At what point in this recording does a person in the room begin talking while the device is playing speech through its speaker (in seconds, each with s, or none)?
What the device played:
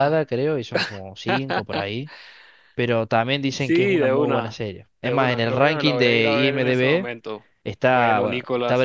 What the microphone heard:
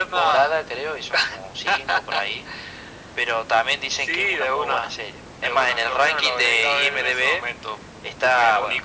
none